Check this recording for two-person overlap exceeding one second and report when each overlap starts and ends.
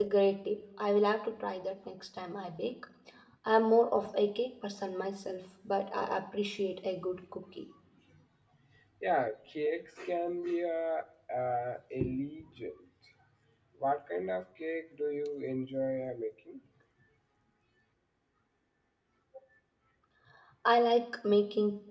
none

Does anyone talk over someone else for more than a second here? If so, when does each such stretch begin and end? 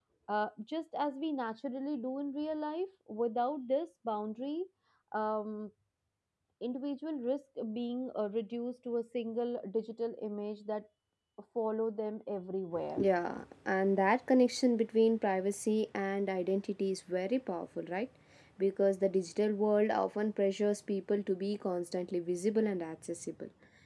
none

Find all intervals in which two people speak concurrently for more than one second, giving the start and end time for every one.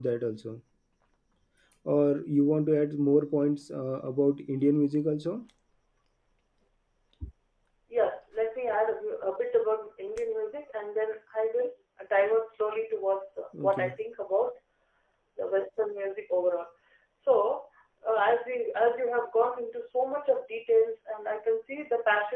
none

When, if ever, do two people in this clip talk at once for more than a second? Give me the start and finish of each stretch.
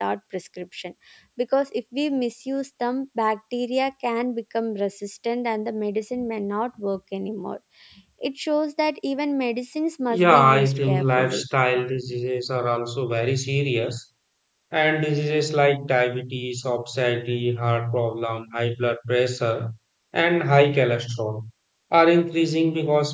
10.1-11.4

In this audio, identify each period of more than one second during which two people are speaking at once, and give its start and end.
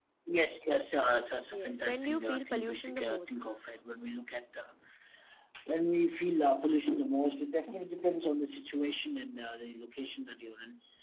1.5-3.4

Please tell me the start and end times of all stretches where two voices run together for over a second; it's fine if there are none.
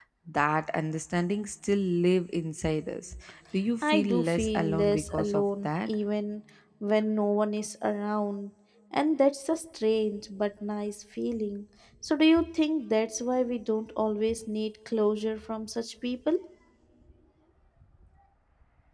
3.8-5.9

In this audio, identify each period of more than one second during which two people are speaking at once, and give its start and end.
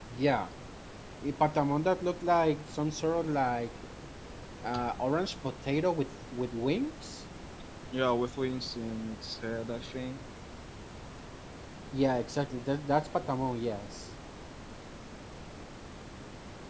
none

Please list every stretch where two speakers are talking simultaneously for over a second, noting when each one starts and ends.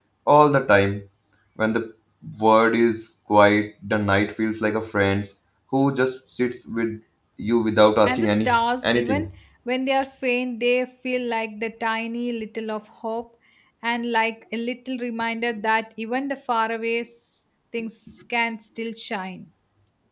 8.1-9.3

